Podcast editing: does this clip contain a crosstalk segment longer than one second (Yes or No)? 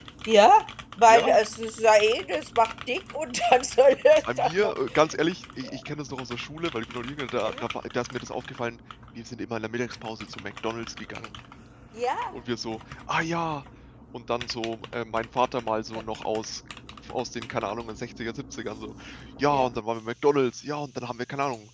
No